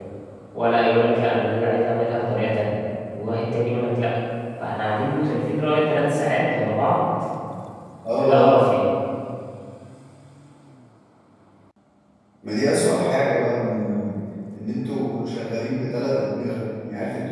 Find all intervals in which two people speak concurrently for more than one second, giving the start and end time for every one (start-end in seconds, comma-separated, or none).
none